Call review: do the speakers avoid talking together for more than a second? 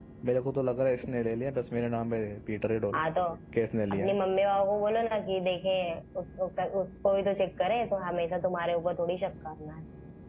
Yes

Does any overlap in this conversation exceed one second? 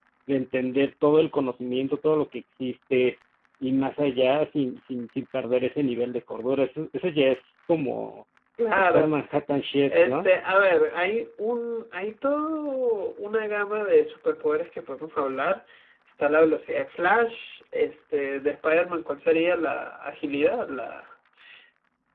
No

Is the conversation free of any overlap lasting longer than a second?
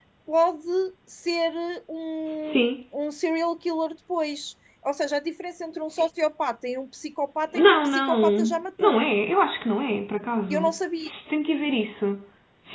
No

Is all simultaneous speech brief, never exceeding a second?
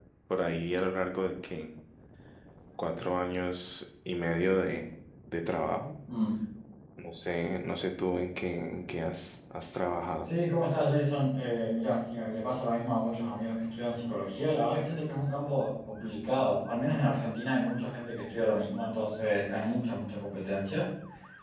Yes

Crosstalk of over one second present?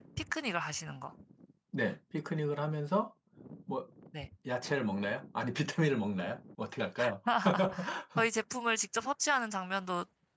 No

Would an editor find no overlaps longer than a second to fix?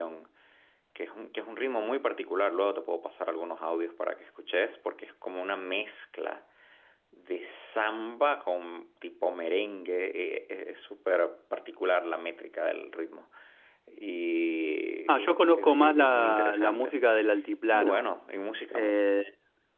No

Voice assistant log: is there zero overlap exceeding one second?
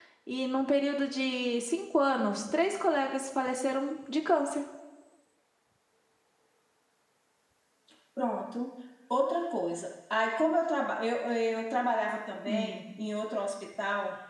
Yes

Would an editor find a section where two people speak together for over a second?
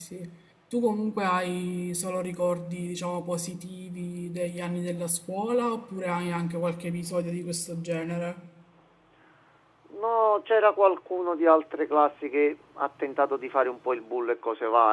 No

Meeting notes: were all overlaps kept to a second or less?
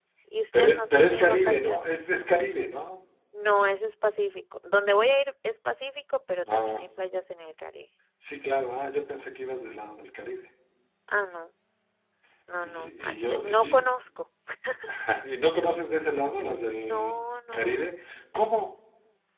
No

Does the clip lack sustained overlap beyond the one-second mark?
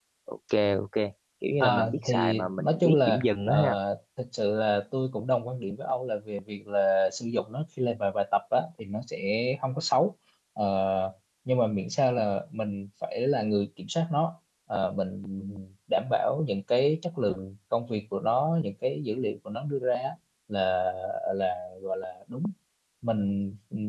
No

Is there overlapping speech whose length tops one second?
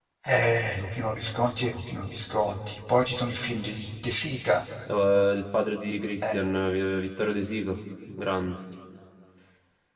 No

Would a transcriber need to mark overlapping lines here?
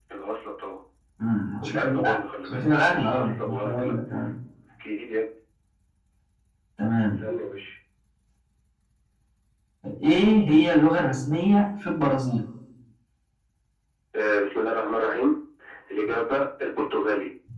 Yes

